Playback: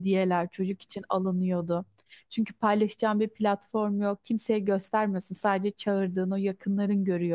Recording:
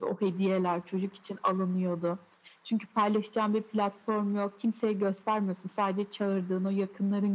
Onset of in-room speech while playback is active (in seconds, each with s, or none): none